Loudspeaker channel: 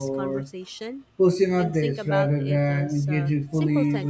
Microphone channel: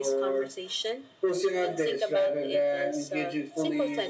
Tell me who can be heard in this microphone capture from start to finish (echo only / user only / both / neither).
echo only